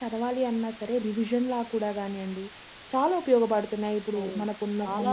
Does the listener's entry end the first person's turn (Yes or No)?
Yes